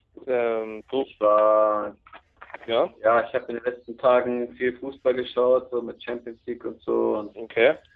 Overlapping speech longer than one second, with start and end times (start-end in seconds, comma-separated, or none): none